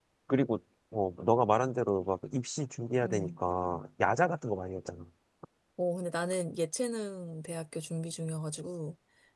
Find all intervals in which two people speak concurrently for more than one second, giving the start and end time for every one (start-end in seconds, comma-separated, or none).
none